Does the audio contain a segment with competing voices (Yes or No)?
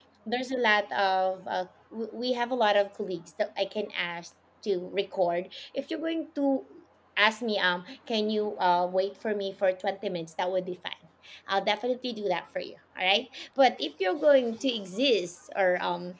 No